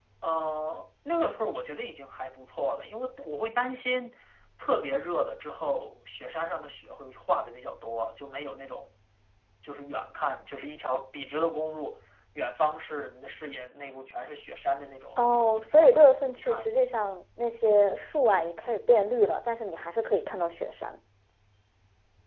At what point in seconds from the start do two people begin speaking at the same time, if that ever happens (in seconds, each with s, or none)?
15.2 s